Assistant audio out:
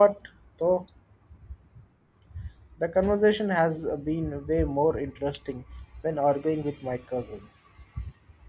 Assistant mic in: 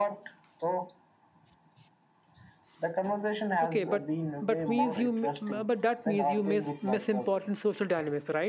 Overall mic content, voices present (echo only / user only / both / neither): both